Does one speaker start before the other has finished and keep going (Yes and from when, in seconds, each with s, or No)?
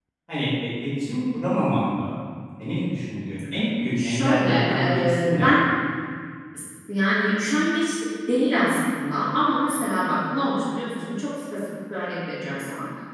Yes, from 4.0 s